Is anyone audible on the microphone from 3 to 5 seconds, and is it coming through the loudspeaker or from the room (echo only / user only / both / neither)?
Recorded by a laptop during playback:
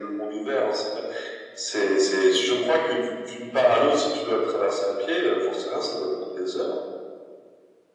echo only